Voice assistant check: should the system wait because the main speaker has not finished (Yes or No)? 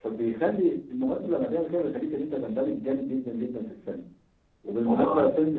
Yes